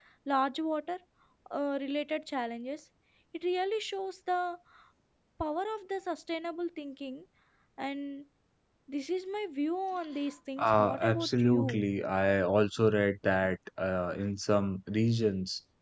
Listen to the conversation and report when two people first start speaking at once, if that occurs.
10.6 s

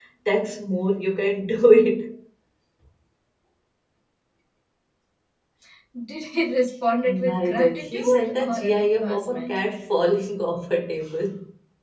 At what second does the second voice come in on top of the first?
7.0 s

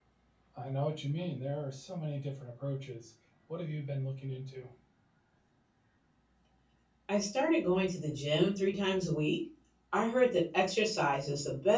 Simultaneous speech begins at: none

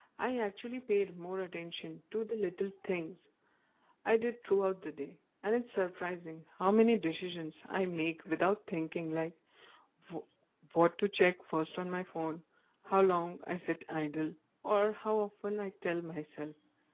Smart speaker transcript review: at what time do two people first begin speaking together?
none

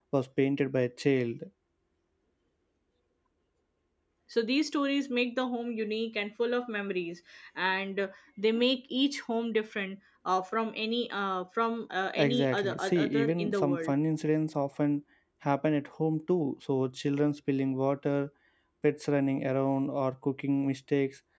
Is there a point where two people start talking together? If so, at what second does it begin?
12.2 s

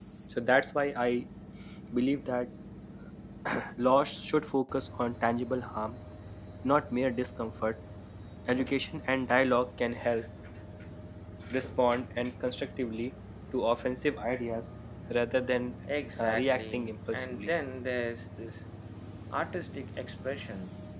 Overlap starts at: 16.2 s

